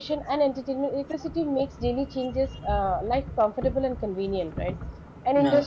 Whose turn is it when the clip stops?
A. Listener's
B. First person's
B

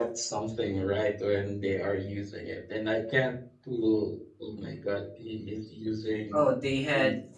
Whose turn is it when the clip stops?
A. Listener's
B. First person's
A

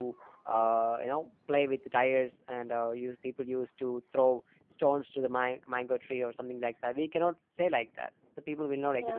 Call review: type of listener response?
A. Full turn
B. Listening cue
B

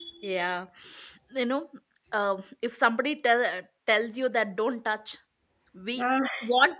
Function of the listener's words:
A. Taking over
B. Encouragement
B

